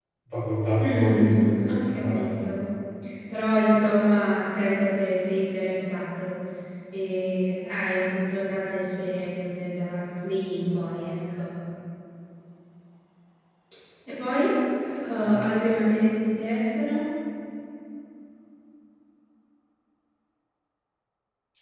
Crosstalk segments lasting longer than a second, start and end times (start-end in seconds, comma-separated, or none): 0.8-2.3